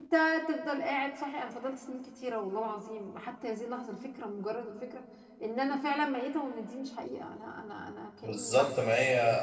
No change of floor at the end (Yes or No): No